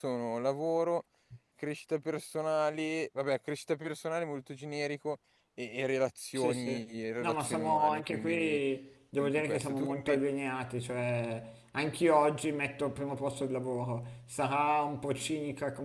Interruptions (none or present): present